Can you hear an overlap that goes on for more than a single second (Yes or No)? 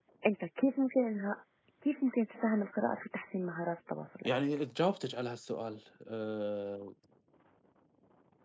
No